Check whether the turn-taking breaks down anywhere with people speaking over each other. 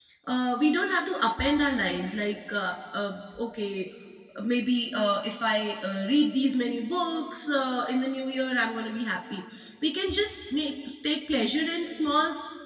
No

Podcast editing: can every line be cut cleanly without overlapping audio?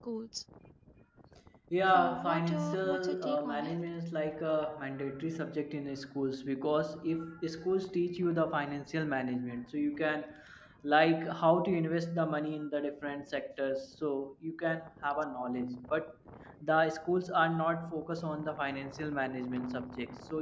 No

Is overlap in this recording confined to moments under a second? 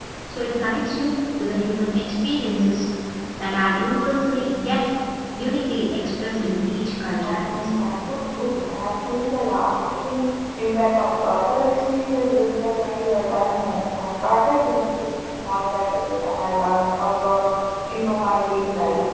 Yes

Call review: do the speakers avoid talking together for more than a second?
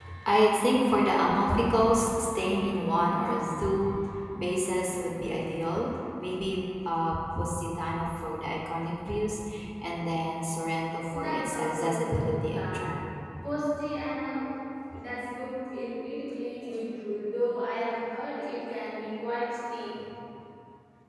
No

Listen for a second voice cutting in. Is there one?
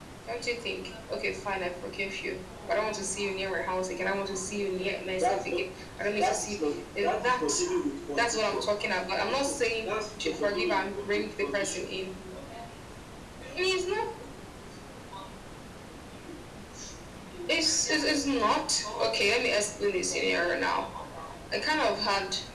Yes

